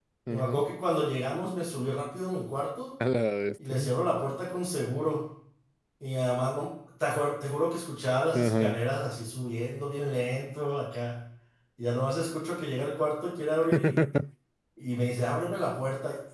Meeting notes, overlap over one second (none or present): none